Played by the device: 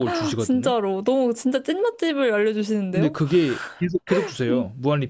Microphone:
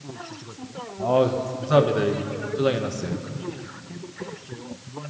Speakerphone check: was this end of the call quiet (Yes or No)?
No